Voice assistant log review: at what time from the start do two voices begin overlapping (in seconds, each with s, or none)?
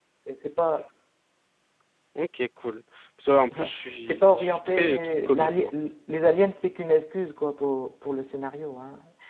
3.5 s